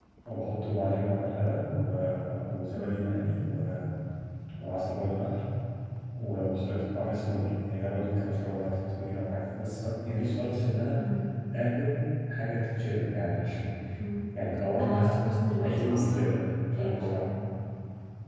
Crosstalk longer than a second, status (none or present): present